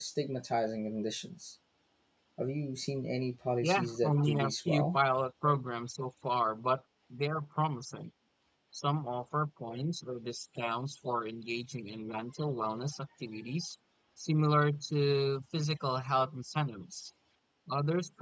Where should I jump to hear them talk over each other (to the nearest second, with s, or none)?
4 s